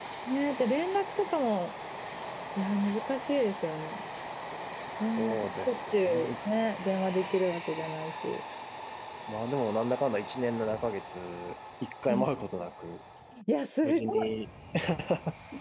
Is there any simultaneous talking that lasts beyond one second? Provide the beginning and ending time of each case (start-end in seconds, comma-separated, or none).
5.1-6.3